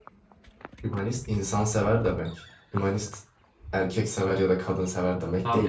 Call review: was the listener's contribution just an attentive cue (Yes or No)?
No